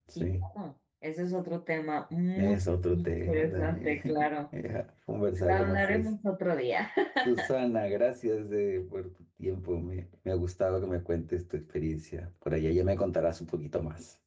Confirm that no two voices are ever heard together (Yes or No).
No